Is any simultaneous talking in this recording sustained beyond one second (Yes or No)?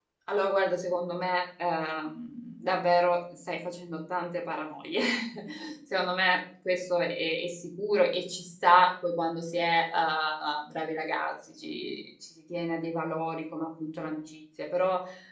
No